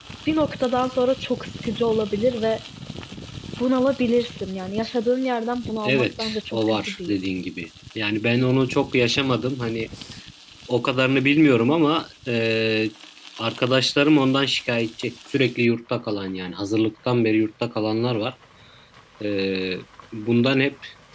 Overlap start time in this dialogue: 5.8 s

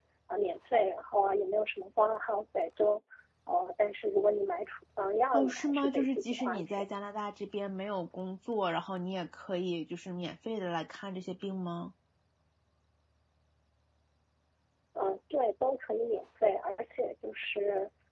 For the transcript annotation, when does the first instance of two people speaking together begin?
5.3 s

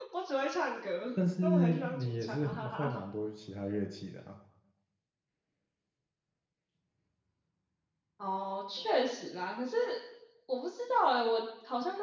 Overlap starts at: 1.4 s

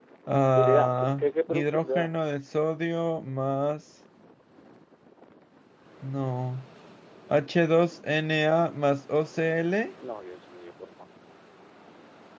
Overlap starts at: 0.6 s

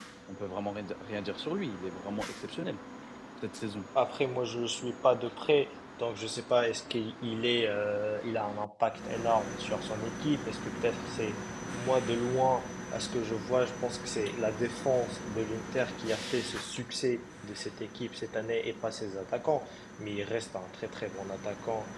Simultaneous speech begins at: none

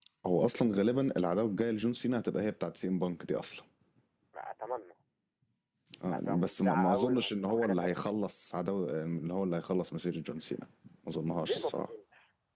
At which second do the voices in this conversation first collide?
6.1 s

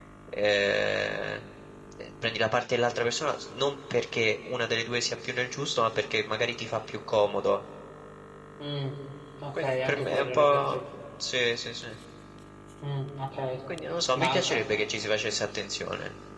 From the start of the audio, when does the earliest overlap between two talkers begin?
9.5 s

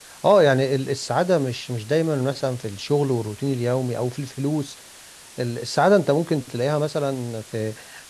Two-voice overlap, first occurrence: none

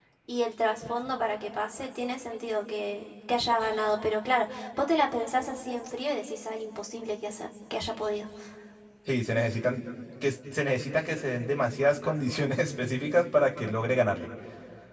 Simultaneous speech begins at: none

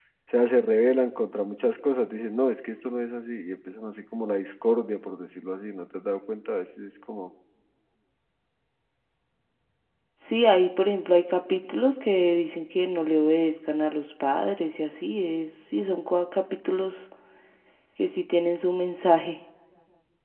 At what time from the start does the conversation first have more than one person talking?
none

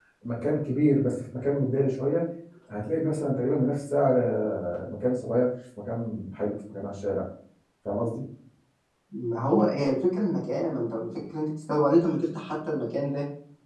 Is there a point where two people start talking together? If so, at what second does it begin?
none

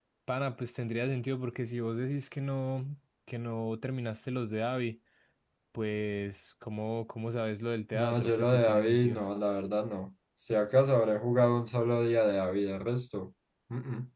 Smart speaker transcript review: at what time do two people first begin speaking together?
7.9 s

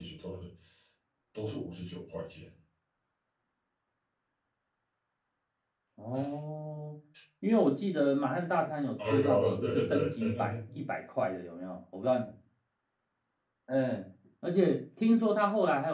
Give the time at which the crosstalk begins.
9.0 s

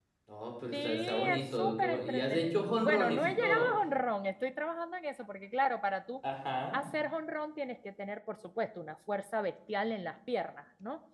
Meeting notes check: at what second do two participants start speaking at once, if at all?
0.7 s

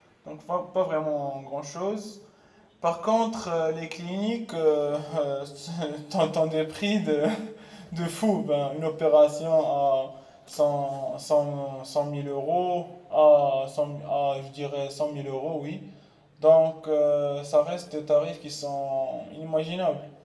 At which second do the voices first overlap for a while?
none

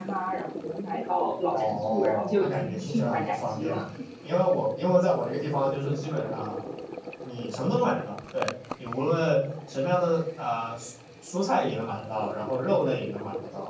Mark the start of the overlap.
1.5 s

